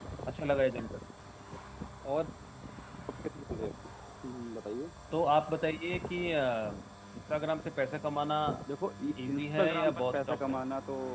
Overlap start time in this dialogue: 9 s

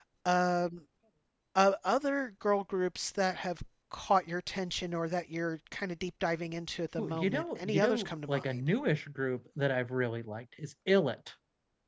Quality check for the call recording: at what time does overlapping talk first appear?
7 s

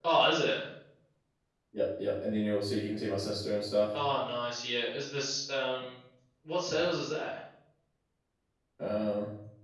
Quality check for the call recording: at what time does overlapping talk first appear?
none

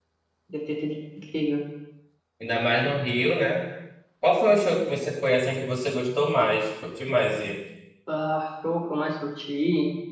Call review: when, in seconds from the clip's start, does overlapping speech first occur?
none

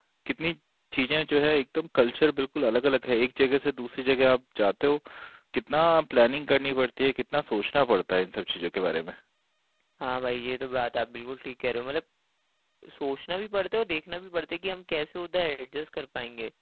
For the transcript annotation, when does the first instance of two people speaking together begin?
none

